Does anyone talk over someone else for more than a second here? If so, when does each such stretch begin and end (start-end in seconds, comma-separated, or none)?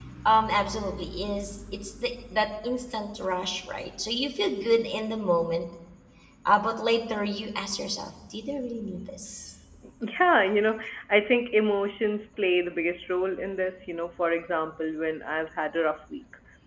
none